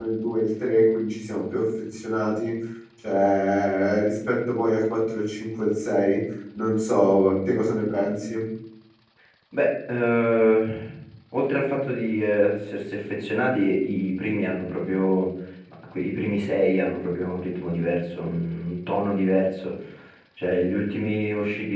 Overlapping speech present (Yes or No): No